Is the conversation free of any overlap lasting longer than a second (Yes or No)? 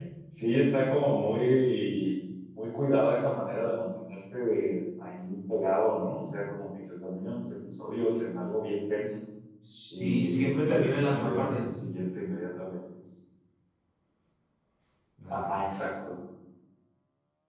No